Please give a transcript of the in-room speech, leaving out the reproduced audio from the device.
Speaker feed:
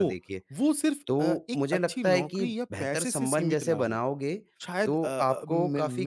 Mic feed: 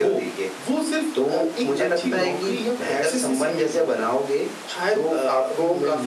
हुँ, हुँ,

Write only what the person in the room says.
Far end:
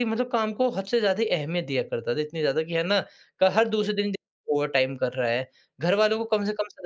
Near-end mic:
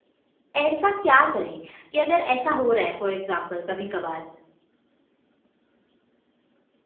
ऐसा क्या करें कि अगर ऐसा हो रहा है फॉर एग्ज़ाम्पल कभी-कभार,

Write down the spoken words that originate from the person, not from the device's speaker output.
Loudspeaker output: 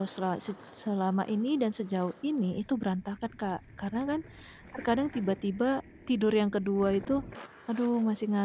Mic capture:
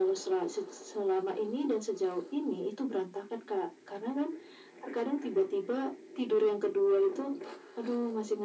none

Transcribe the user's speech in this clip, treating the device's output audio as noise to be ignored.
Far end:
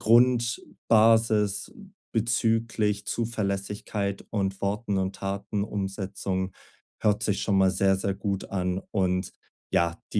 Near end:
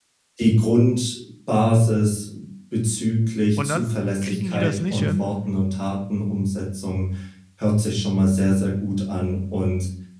Und dann kriegen die das nicht hin

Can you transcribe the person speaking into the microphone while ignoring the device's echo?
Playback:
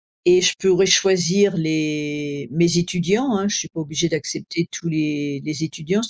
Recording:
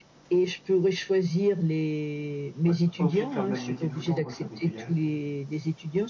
ouais, pas obligé de faire le même métier tout le temps quoi, ça m'est égal

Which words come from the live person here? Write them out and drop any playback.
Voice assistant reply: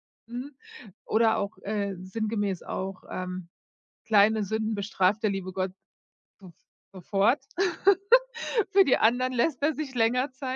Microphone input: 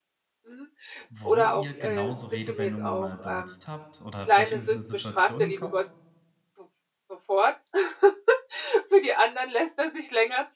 wo ihr genauso Redewendungen mal benutzt habt oder vielleicht irgendeine Situation im Kopf?

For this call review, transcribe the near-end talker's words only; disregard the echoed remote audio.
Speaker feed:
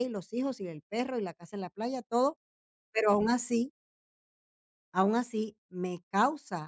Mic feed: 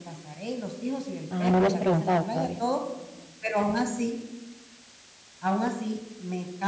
Ah, no lo has preguntado todavía.

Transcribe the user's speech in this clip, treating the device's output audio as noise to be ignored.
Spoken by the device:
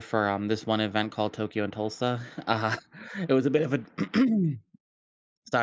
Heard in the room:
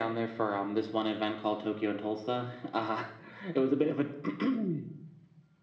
none

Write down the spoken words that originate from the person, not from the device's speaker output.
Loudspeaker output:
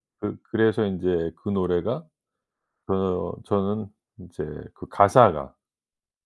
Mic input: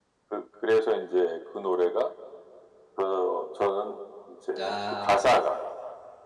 아

